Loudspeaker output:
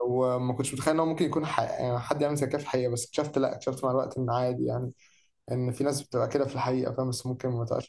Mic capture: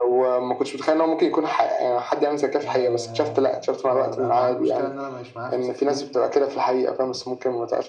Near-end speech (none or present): present